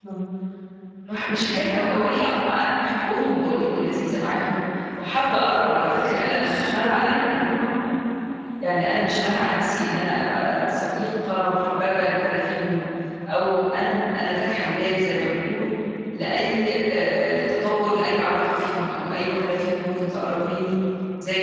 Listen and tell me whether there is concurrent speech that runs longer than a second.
Yes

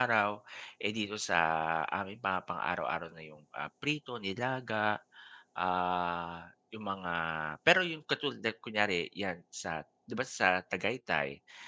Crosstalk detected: No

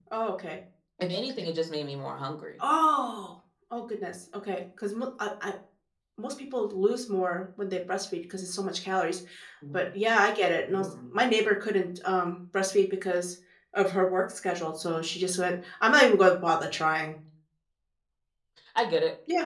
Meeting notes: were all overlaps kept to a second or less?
Yes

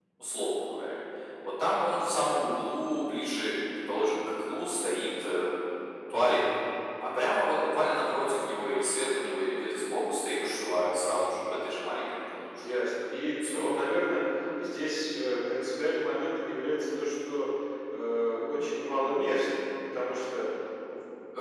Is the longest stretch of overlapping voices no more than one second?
Yes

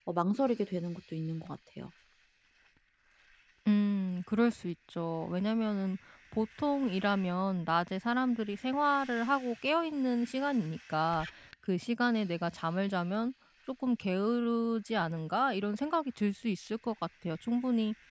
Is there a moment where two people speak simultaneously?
No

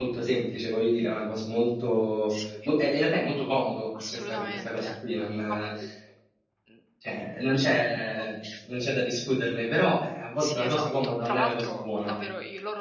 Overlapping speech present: Yes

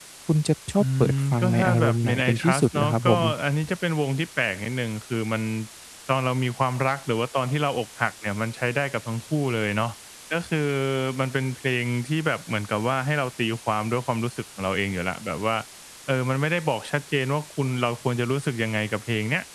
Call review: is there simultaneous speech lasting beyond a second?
Yes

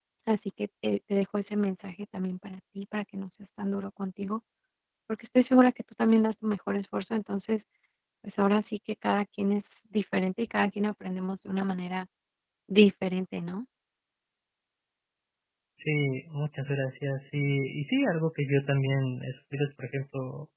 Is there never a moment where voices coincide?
Yes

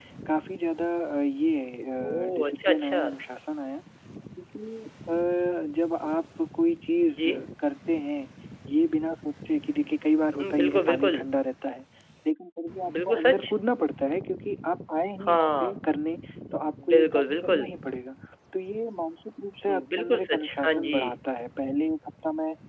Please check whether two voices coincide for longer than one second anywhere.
Yes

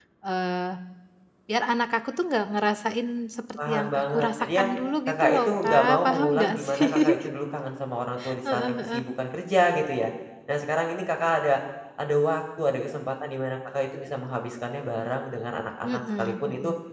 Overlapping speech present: Yes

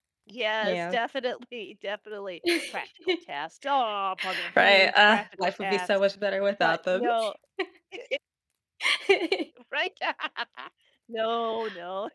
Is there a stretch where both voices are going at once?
Yes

